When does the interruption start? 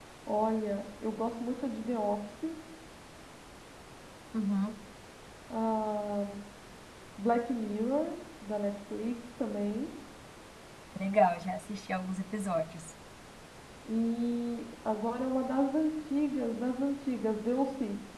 none

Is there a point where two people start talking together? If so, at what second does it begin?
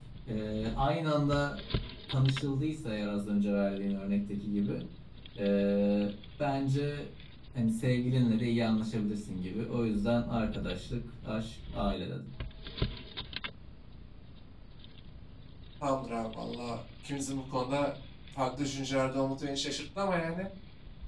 none

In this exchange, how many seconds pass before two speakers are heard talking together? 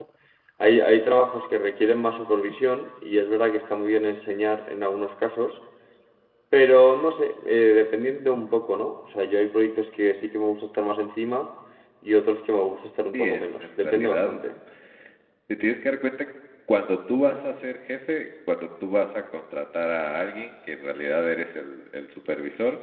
13.1 s

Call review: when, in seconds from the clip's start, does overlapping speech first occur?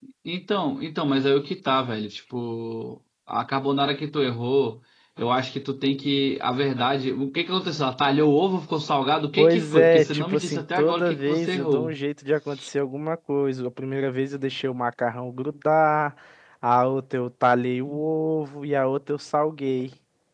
9.4 s

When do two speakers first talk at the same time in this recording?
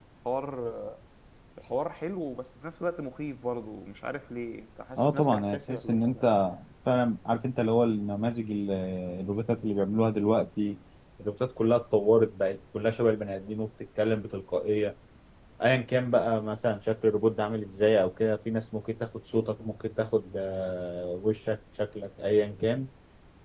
5.0 s

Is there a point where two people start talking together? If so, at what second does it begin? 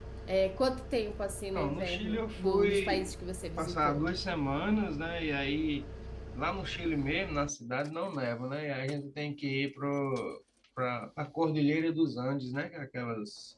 1.5 s

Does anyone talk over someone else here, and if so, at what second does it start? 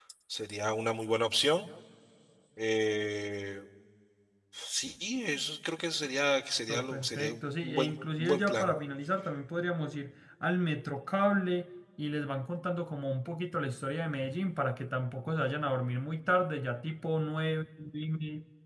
6.7 s

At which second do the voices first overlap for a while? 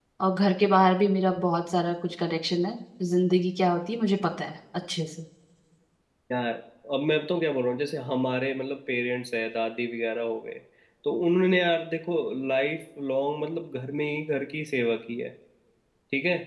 none

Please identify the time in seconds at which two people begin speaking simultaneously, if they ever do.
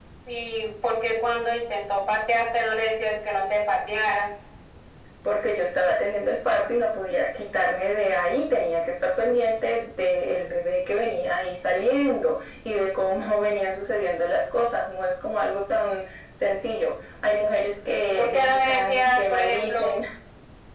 18.1 s

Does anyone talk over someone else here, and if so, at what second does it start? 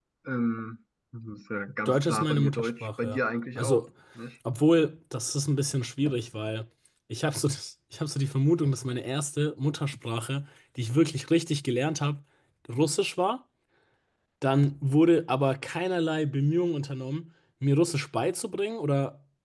1.9 s

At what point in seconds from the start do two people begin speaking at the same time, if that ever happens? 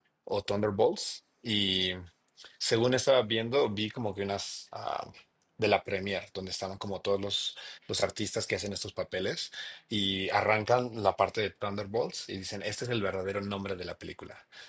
none

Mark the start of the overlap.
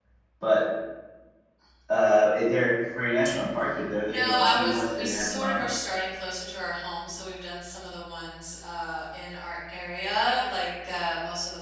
4.0 s

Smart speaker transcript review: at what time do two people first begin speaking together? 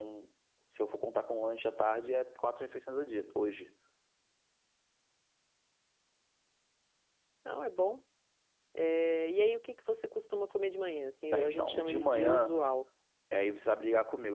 11.3 s

